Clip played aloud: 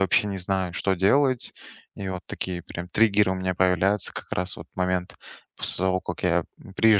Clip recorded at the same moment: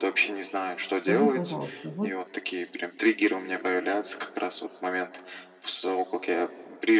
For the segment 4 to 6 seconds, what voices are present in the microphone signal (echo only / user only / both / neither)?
echo only